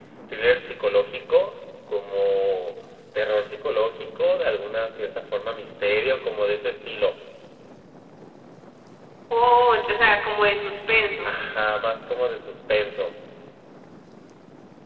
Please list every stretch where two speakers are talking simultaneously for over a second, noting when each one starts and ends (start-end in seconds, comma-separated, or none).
none